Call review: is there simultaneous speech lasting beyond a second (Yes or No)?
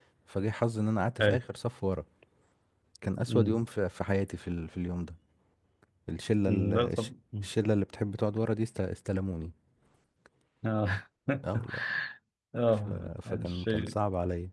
Yes